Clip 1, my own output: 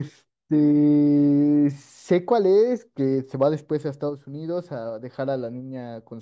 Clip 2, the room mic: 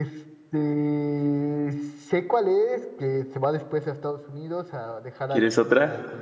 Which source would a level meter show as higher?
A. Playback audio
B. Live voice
B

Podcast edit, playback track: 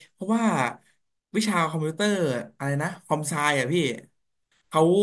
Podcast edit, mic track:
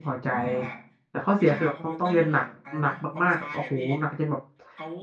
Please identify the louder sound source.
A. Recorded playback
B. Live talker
B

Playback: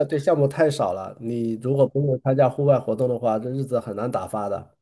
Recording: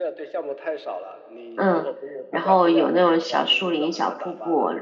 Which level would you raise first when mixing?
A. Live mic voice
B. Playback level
B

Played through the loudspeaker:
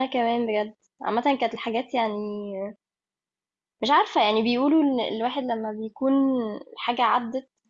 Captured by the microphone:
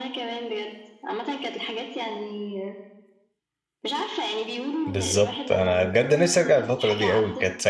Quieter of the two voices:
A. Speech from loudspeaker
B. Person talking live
A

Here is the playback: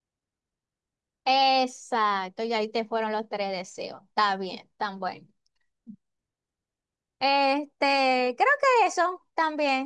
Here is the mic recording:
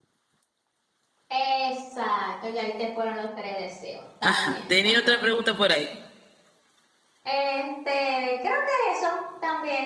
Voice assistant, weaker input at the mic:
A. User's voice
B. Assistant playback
B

